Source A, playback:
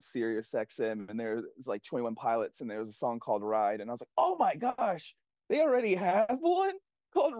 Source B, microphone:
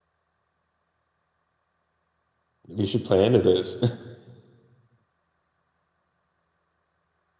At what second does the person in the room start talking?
2.7 s

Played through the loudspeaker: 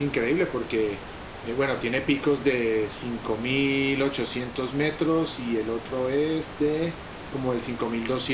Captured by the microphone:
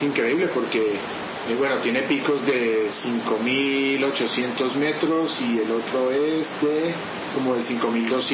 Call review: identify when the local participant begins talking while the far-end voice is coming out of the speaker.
none

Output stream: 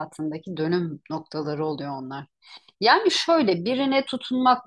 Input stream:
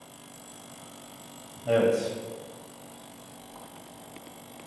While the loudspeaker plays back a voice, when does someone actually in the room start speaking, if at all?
1.7 s

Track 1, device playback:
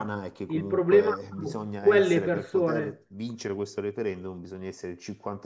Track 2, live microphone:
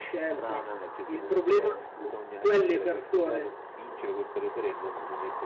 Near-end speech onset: none

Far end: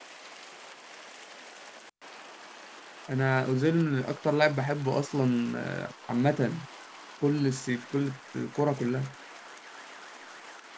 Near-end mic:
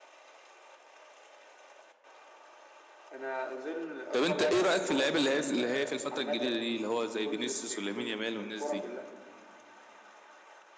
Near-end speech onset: 4.1 s

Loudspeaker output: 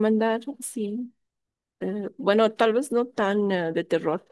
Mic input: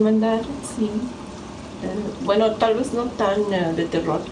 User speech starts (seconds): none

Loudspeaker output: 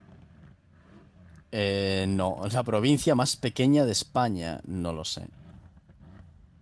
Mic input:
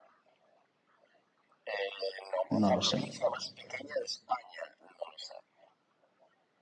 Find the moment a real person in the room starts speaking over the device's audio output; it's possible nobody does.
2.5 s

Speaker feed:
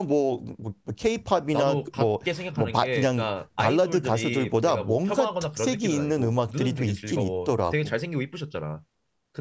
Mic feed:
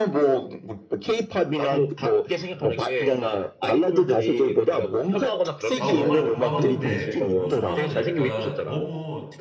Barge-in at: 5.8 s

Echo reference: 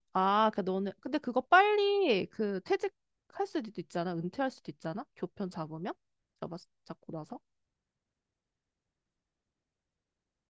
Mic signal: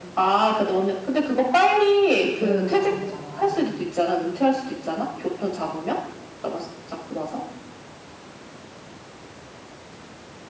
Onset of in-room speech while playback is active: 2.4 s

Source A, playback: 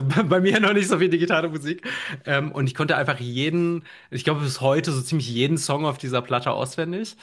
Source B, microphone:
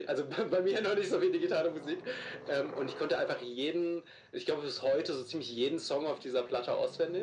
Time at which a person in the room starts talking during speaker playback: none

